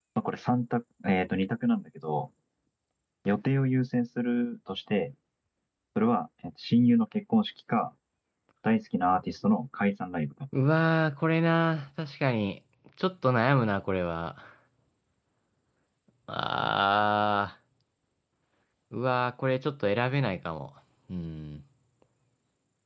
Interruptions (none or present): none